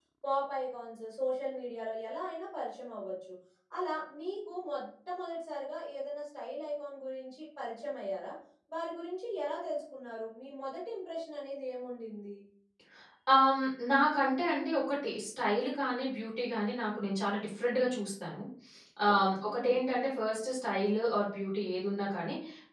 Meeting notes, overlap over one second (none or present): none